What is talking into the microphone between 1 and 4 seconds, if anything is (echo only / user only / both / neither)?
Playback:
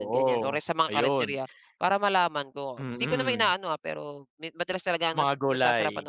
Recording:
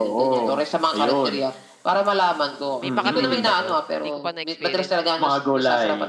both